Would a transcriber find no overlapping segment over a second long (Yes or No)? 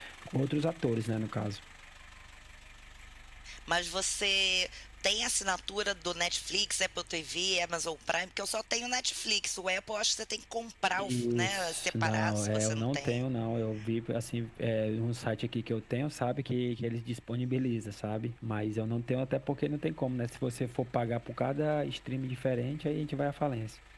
No